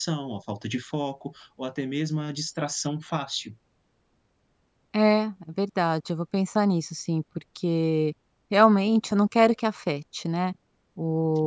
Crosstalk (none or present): none